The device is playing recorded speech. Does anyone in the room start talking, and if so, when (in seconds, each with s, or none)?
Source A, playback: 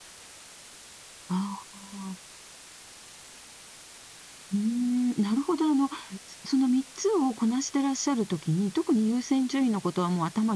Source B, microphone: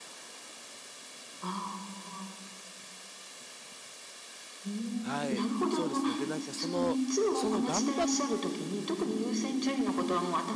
5.0 s